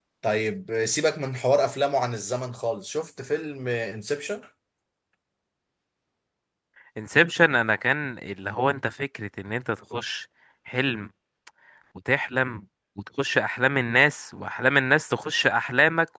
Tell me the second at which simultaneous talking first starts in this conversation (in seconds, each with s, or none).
none